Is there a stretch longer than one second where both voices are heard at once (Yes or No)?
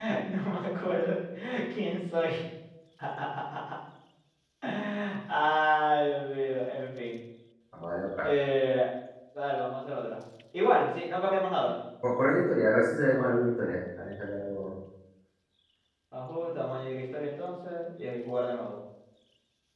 No